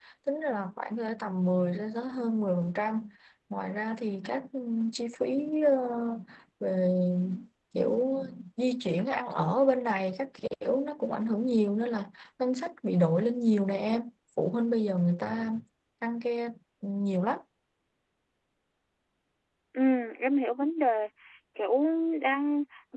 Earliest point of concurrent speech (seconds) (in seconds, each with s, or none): none